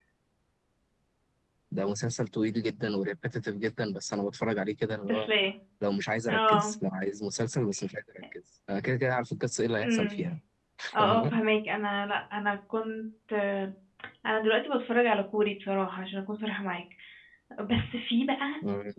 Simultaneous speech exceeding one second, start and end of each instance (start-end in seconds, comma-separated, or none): none